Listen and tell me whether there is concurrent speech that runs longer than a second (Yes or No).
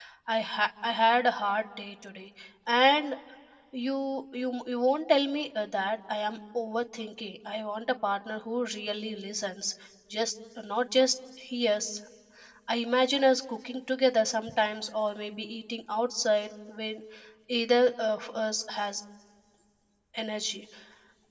No